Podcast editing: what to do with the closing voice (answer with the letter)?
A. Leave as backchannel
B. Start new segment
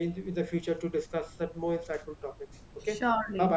B